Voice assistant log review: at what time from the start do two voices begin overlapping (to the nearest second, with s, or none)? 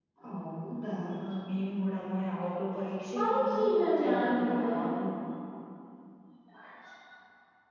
3 s